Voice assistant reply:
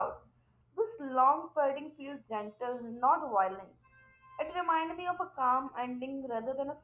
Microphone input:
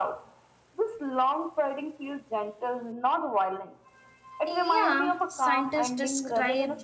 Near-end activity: present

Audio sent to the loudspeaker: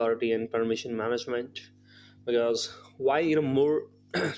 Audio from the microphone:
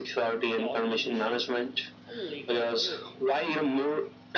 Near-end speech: present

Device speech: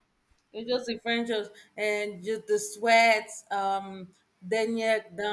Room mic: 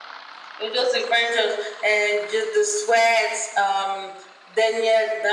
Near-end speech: none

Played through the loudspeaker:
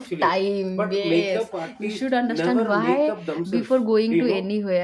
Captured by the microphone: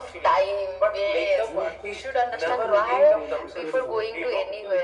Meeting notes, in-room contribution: present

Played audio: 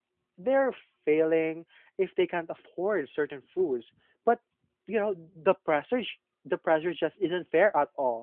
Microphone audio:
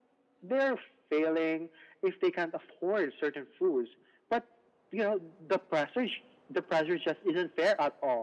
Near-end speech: none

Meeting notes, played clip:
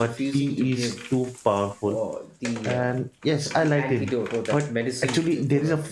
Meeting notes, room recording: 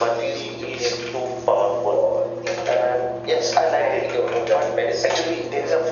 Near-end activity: none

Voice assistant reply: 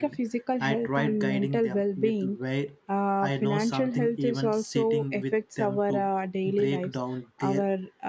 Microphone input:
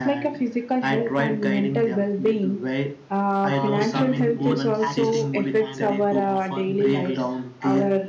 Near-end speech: present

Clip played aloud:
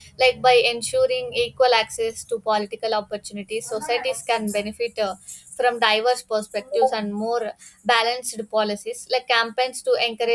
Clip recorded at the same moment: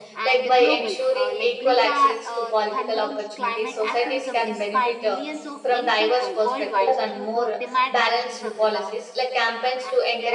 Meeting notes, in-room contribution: present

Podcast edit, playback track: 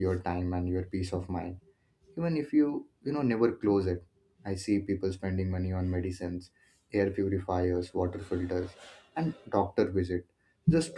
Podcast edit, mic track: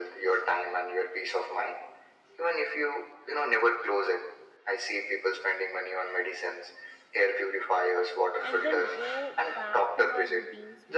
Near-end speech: present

